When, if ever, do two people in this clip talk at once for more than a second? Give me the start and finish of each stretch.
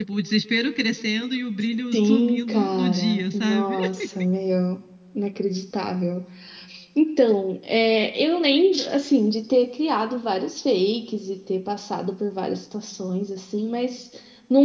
1.9-3.8

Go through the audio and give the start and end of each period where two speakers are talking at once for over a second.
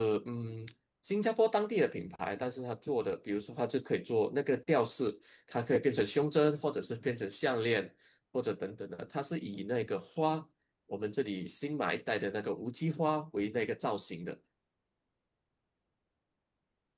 none

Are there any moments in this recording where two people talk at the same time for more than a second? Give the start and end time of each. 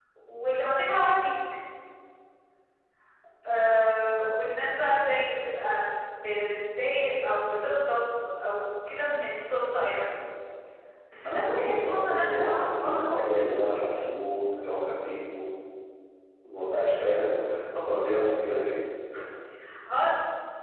11.2-13.5

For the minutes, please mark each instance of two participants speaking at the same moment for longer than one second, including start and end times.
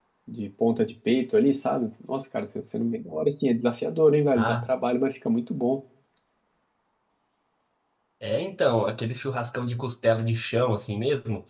none

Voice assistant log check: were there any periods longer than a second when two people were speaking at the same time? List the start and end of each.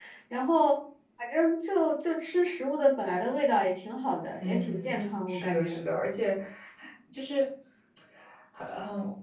4.4-5.8

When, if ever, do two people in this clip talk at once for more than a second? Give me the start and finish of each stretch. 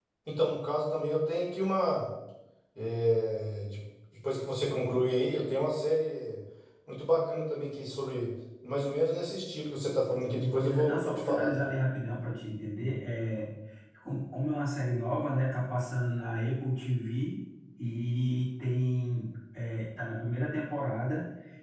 10.2-11.6

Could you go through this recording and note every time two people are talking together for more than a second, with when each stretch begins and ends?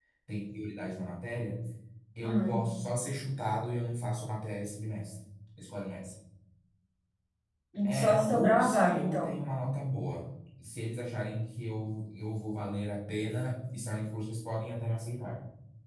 8.0-9.3

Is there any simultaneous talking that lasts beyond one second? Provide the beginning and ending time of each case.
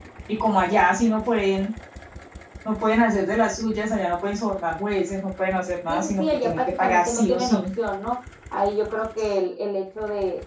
5.9-7.6

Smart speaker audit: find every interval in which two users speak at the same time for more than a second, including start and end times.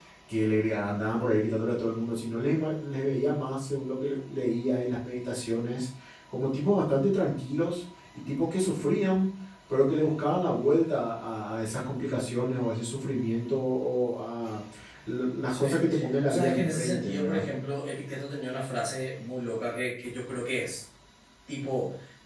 16.2-17.4

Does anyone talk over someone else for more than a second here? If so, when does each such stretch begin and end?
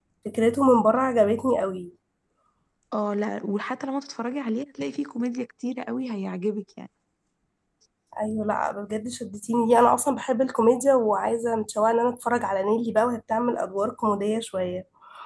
none

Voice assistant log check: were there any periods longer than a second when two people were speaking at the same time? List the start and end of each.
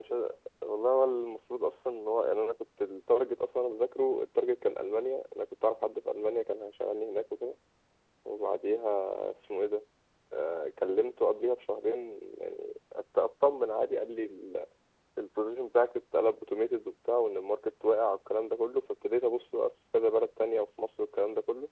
none

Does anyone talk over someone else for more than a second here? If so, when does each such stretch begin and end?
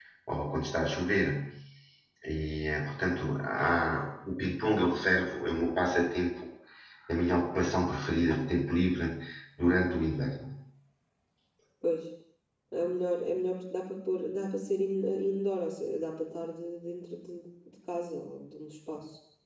none

